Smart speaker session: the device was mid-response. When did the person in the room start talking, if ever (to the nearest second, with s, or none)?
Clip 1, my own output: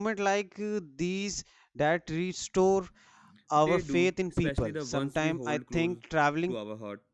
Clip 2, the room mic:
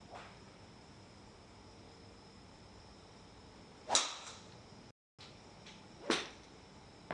none